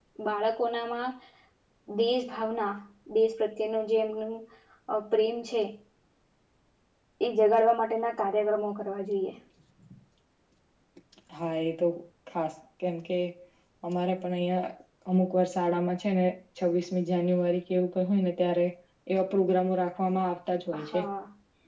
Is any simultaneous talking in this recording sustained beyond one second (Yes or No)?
No